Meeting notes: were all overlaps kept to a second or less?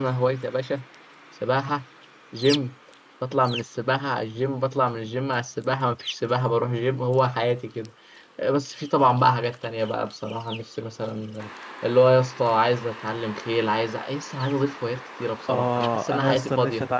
No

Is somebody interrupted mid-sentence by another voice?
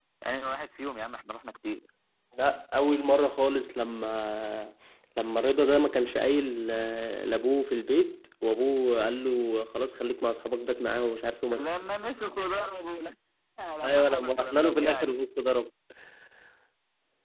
Yes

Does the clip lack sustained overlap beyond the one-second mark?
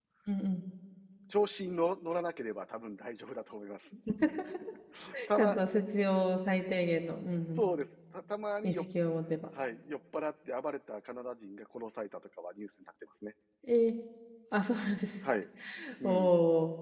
Yes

